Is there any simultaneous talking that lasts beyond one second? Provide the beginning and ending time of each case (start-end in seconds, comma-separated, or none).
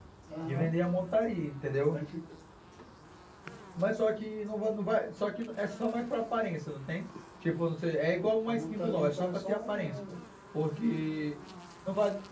8.4-9.9